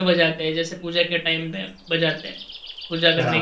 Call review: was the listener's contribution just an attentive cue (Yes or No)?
No